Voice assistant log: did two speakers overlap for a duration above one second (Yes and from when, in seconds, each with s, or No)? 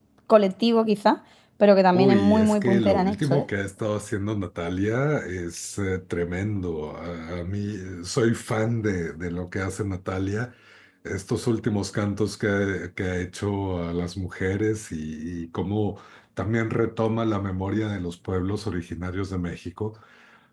Yes, from 1.9 s